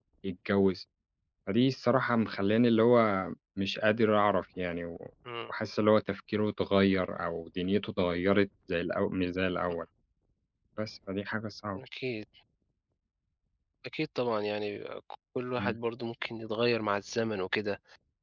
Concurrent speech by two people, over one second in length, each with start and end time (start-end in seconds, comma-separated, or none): none